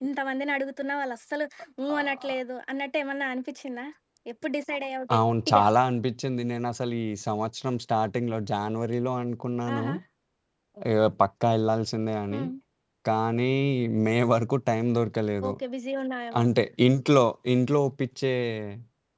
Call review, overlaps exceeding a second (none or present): none